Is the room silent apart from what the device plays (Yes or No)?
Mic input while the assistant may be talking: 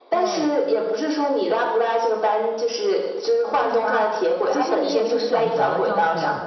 No